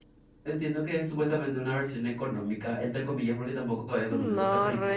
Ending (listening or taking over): taking over